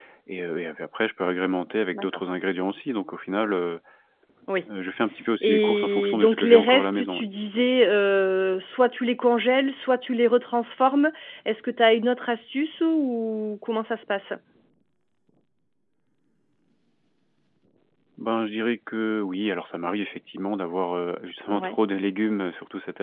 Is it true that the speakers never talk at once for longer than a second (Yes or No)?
No